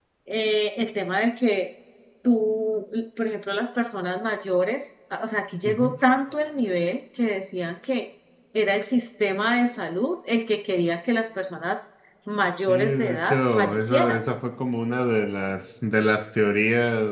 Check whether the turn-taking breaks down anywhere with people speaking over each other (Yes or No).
Yes